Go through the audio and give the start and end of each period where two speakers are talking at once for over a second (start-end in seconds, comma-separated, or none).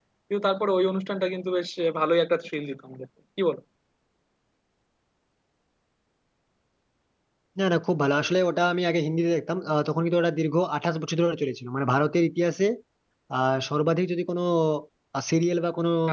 none